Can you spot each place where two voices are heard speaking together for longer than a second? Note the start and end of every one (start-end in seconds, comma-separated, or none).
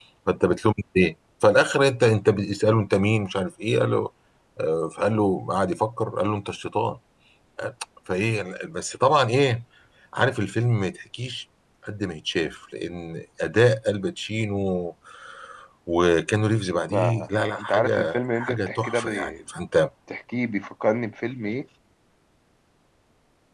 17.6-19.3